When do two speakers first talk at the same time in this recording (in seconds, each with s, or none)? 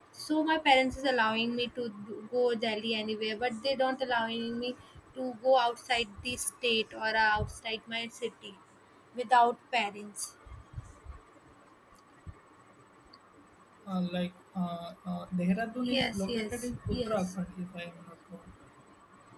15.8 s